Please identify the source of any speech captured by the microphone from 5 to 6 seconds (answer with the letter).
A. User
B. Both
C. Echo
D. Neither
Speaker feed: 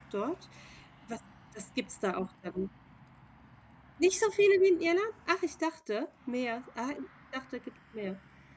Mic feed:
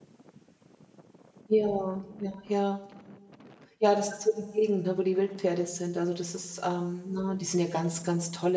A